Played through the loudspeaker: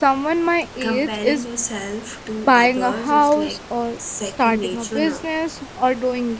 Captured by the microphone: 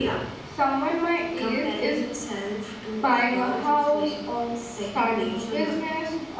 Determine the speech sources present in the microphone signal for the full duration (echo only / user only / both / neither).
echo only